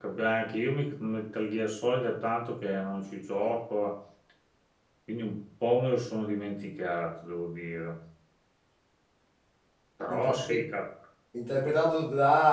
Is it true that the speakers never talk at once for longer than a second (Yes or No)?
Yes